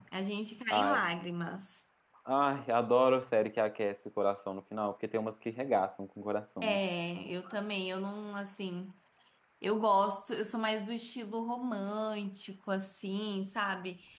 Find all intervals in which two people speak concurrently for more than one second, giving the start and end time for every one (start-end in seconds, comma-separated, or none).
none